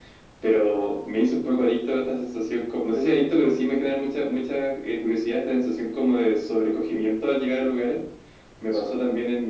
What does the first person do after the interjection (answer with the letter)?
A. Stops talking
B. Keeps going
B